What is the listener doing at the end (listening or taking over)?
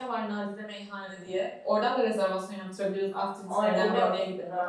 taking over